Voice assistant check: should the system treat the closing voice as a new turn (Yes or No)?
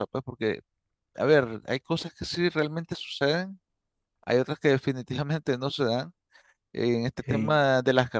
No